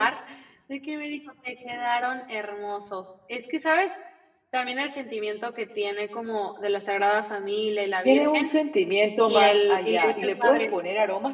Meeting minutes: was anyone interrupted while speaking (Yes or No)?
Yes